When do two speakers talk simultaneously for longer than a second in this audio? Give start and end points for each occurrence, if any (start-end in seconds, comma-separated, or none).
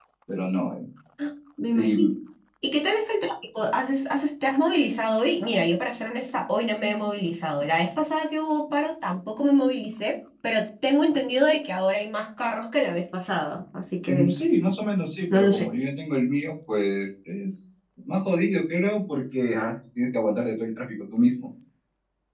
none